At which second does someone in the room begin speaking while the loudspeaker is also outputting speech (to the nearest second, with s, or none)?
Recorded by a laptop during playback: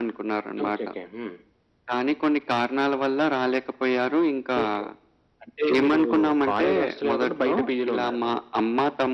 none